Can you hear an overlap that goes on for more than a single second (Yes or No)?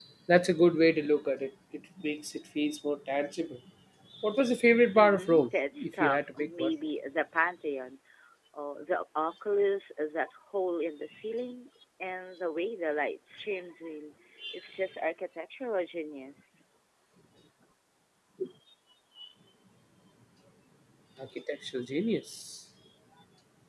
Yes